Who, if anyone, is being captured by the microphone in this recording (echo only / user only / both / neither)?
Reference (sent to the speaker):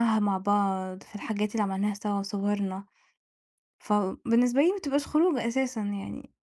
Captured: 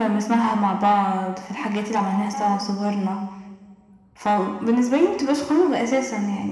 both